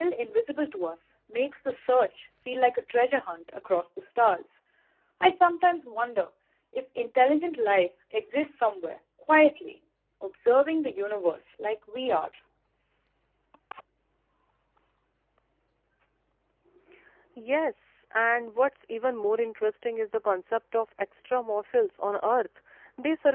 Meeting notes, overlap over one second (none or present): none